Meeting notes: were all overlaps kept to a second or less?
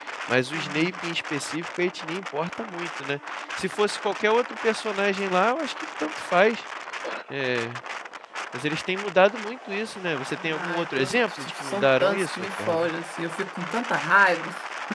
No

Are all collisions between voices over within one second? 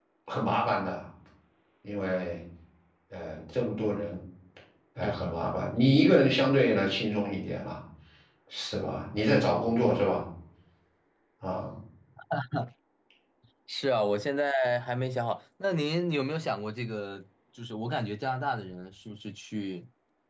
Yes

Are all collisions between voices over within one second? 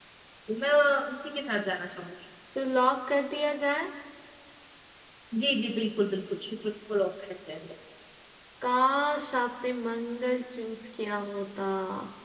Yes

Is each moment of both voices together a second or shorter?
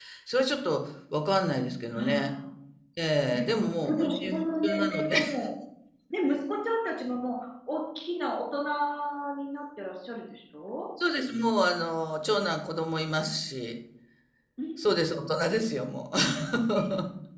No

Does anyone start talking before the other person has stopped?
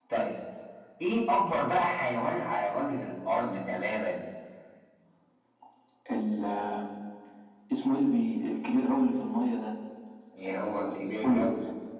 Yes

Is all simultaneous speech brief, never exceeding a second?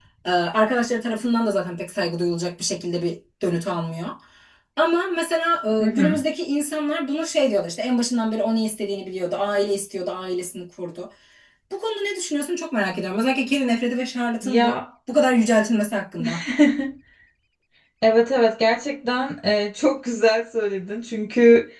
Yes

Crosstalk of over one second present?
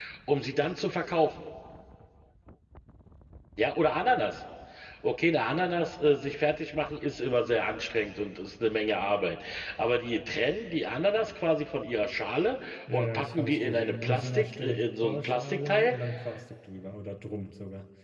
Yes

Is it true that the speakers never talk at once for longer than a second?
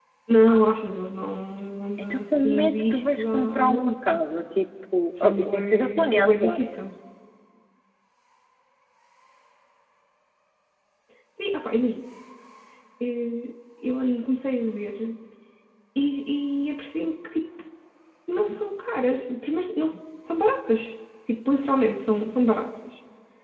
No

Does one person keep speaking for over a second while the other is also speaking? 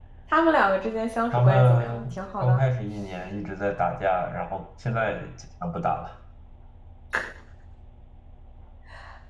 Yes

